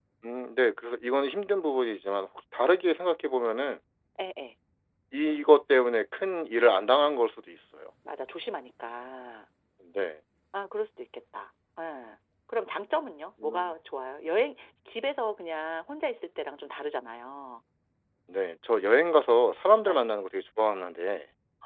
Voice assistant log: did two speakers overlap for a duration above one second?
No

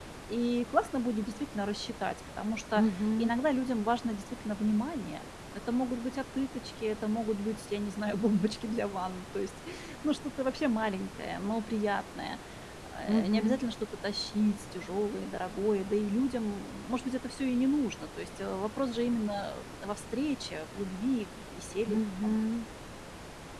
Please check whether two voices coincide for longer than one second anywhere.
No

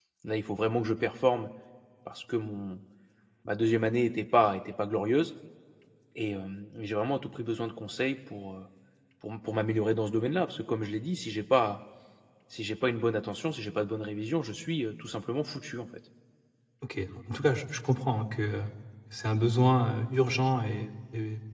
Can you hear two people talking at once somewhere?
No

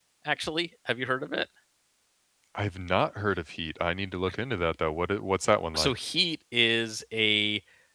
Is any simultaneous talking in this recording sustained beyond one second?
No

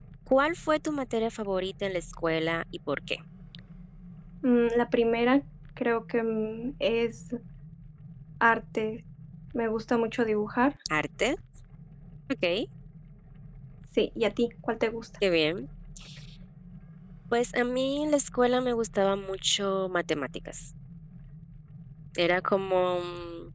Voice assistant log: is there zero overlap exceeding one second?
Yes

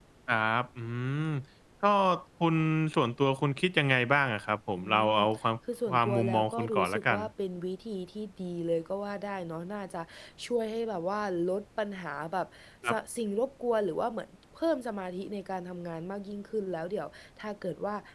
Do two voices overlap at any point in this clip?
Yes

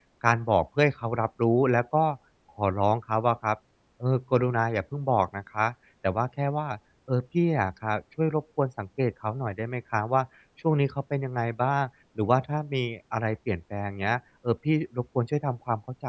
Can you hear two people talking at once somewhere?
No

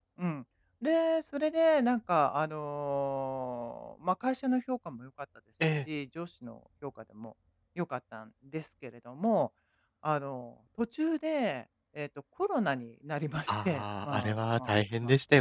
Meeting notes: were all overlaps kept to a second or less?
No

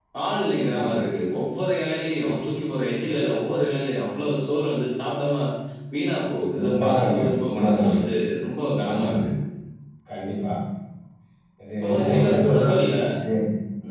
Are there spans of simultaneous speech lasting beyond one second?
Yes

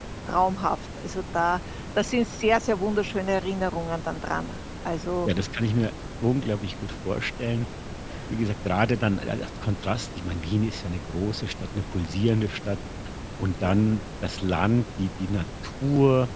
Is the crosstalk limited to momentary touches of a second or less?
Yes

